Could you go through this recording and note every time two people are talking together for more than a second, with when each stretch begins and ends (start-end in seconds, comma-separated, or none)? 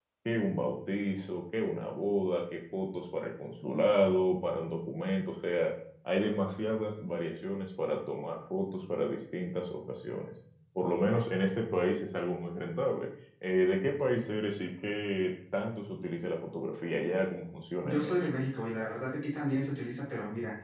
none